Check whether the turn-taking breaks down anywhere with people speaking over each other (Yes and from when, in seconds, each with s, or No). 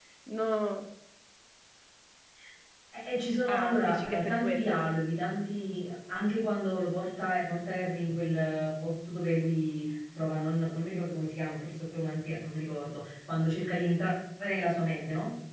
Yes, from 3.5 s